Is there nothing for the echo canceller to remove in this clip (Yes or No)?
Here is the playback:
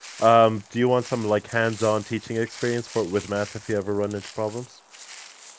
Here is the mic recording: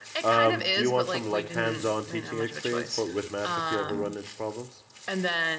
No